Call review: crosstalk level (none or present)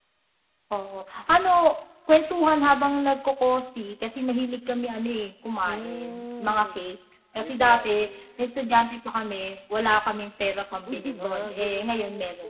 present